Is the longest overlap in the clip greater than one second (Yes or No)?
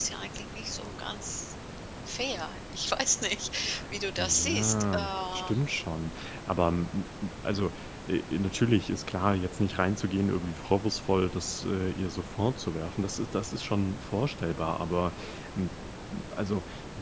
Yes